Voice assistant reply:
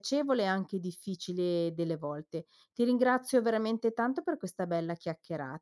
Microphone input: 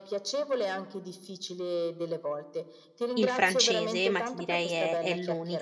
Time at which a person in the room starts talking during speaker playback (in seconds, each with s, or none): 3.1 s